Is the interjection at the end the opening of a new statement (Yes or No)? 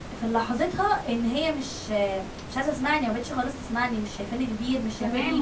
Yes